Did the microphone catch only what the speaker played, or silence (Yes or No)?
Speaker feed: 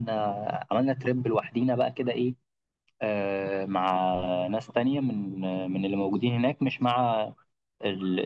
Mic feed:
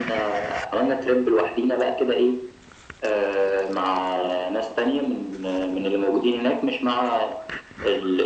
Yes